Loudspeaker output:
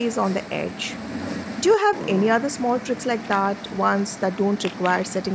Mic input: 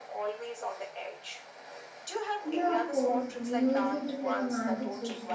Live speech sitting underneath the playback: No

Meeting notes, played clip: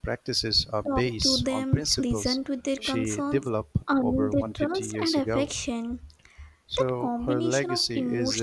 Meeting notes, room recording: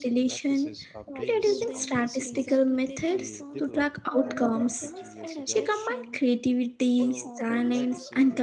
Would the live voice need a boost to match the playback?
No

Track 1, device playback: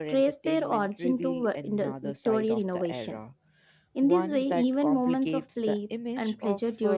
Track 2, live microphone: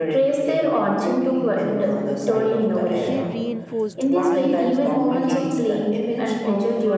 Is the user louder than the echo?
No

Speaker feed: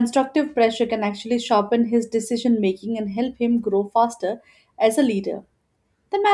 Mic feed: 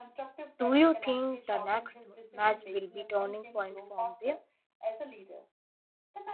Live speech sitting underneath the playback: No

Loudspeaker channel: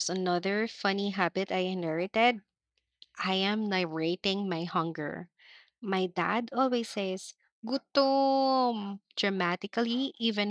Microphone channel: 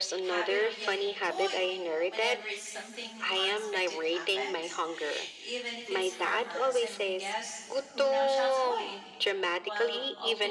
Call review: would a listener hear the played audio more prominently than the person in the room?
Yes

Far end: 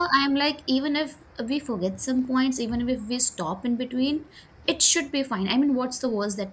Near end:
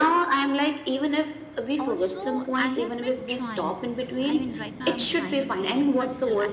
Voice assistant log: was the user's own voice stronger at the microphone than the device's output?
No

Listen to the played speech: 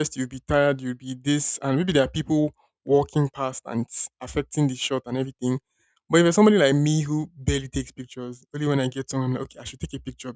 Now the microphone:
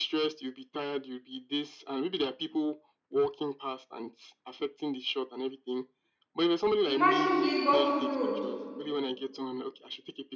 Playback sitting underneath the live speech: Yes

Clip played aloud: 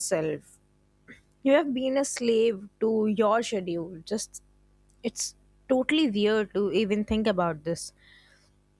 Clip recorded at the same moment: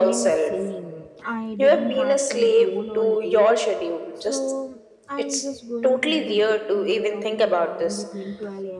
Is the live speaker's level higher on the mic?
No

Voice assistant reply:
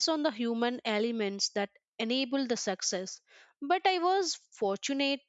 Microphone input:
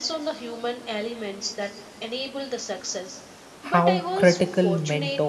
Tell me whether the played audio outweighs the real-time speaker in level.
No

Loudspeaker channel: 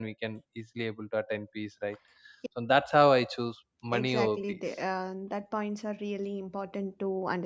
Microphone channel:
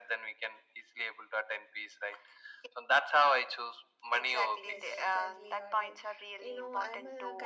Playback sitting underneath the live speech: No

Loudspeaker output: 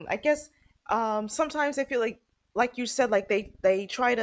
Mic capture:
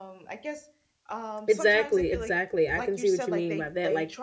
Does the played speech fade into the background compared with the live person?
Yes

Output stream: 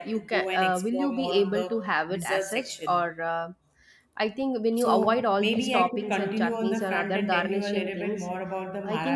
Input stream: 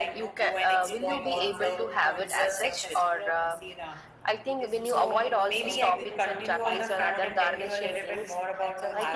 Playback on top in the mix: Yes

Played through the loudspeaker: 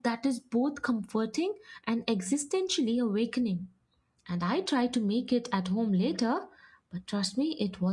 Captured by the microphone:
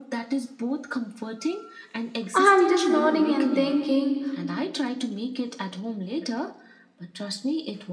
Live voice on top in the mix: Yes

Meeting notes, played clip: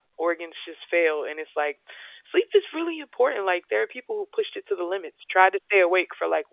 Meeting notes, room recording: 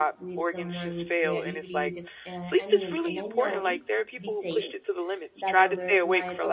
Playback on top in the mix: Yes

